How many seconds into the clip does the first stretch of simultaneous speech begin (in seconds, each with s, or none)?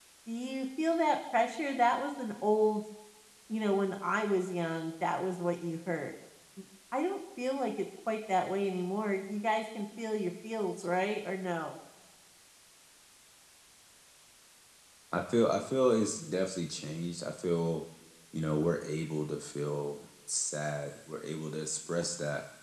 none